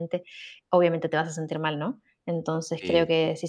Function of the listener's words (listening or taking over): listening